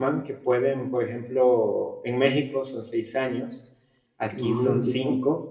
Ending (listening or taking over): listening